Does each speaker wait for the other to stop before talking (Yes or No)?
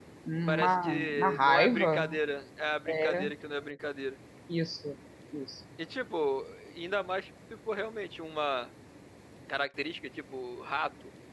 No